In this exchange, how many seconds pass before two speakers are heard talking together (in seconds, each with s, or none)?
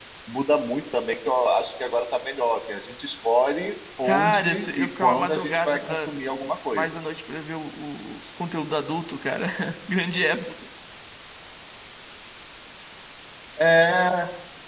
4.0 s